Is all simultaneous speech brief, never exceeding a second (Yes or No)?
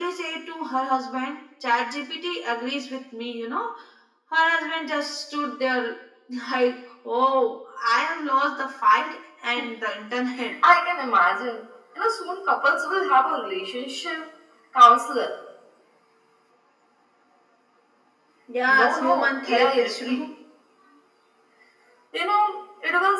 No